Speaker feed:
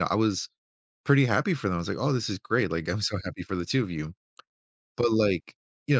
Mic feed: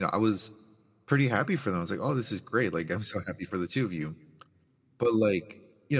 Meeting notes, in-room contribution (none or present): none